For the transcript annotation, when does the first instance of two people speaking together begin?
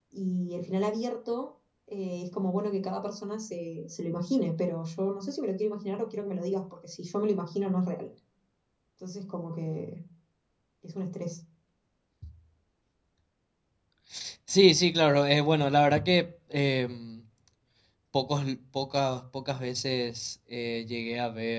none

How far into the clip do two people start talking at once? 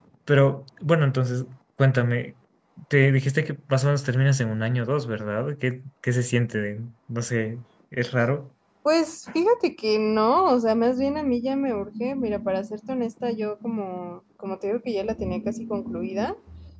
none

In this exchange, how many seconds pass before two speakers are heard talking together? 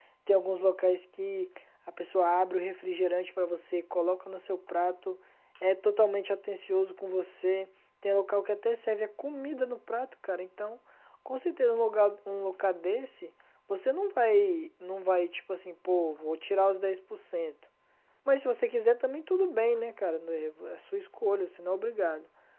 none

